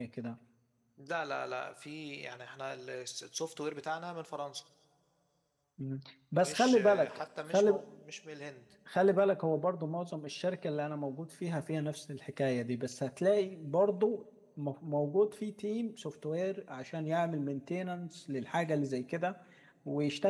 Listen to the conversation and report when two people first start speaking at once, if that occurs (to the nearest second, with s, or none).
6 s